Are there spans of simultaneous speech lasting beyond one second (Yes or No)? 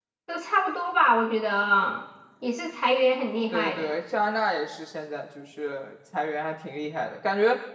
No